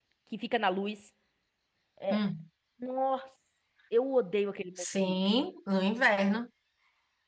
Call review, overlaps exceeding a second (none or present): none